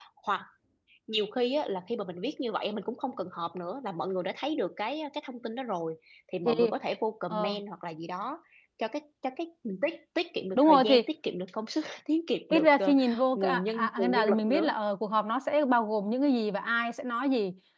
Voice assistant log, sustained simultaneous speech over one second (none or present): present